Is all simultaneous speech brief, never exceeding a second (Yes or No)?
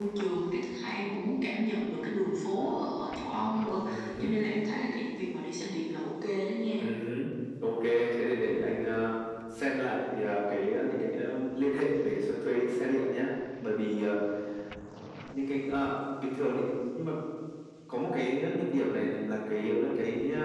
Yes